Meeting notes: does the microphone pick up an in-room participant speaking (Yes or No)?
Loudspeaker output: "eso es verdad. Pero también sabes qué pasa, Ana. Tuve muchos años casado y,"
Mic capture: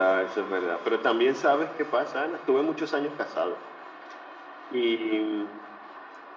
No